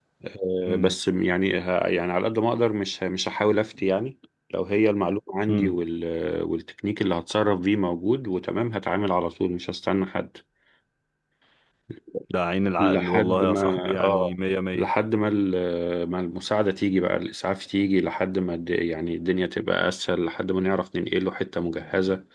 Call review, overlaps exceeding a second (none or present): present